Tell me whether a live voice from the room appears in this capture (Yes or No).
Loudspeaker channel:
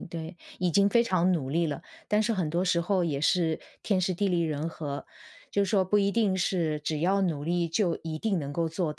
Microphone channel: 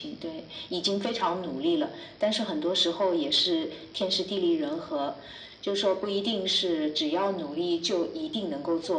No